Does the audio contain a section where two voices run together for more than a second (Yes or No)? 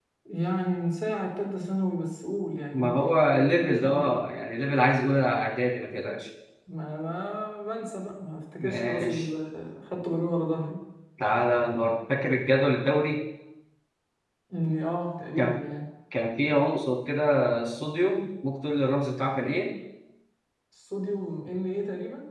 Yes